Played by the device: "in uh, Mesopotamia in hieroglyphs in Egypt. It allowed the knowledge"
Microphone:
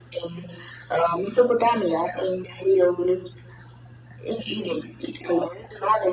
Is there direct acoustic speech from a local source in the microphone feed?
No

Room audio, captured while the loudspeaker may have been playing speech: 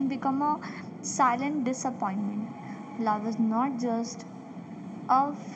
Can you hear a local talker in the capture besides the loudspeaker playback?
No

